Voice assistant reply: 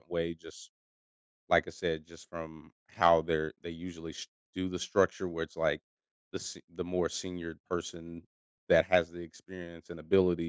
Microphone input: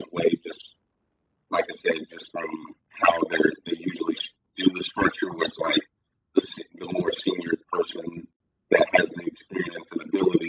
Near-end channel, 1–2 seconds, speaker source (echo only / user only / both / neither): echo only